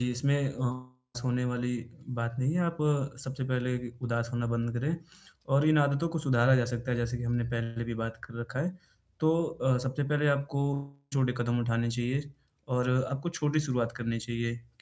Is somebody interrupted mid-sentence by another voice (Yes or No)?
No